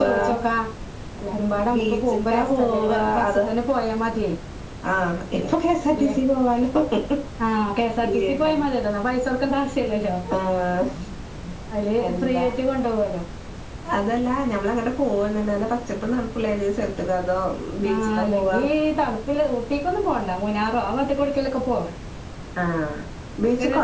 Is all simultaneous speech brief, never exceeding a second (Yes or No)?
No